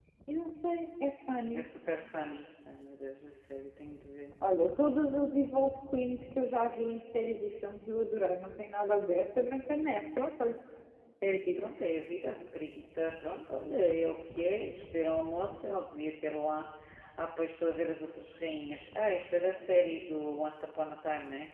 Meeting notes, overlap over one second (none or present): none